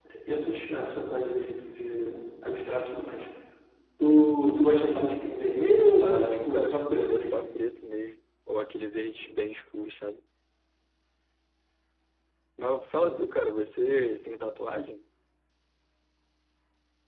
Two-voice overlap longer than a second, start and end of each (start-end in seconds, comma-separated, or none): 6.0-7.5